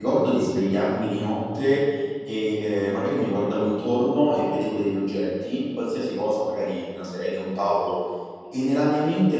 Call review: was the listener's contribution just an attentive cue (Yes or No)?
Yes